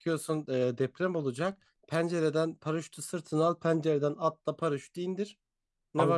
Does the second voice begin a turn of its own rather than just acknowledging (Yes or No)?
Yes